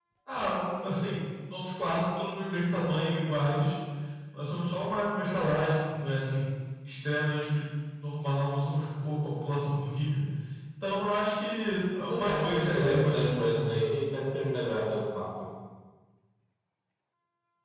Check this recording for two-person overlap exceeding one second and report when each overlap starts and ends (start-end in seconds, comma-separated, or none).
12.1-13.6